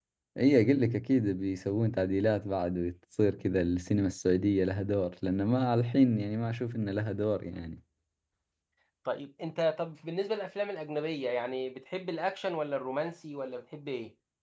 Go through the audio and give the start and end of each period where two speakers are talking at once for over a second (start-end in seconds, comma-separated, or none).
none